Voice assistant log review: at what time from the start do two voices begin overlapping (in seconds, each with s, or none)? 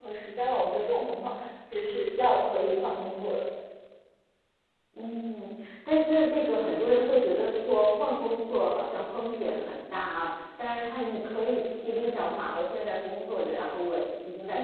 none